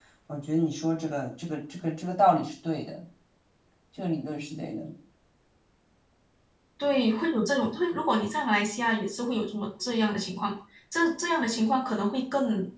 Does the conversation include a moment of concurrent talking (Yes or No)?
No